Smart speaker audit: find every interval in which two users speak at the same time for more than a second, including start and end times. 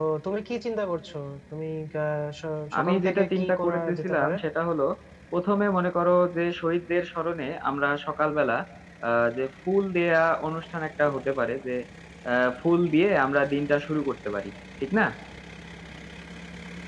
2.8-4.3

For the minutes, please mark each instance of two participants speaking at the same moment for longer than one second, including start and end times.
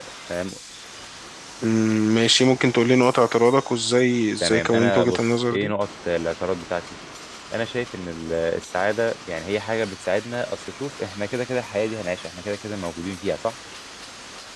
4.4-5.7

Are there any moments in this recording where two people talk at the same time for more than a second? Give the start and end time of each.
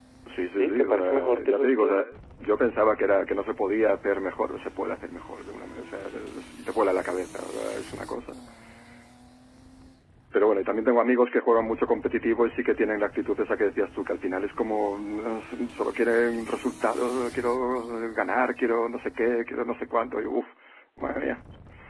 0.6-2.1

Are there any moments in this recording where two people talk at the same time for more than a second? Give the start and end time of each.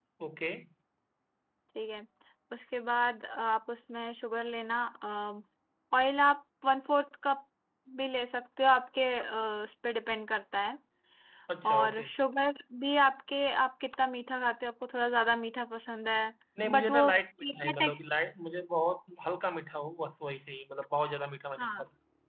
16.6-18.0

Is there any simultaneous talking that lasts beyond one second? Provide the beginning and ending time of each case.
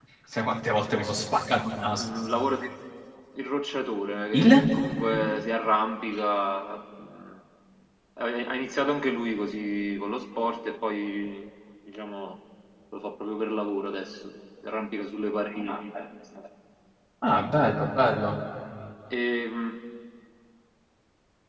none

